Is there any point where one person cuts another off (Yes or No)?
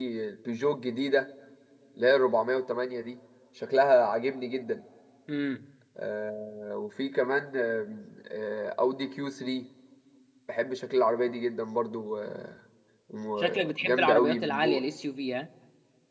Yes